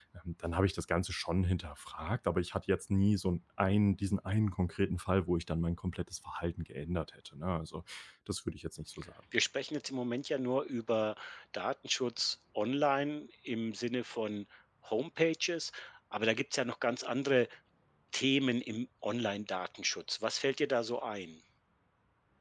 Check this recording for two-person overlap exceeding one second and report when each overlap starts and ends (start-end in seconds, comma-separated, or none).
none